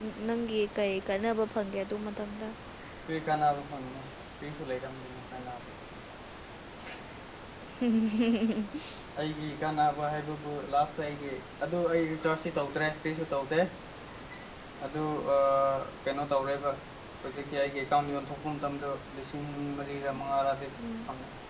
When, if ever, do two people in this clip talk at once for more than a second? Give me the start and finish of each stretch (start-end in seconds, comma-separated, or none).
none